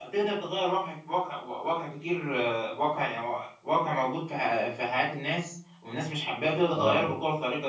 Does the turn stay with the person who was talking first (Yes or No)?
Yes